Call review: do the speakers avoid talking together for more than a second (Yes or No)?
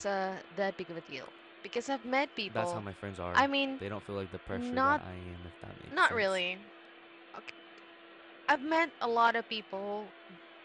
Yes